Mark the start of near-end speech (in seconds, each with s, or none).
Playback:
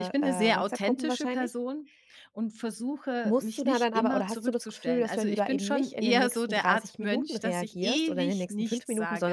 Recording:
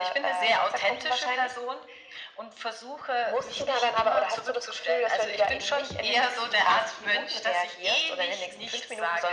none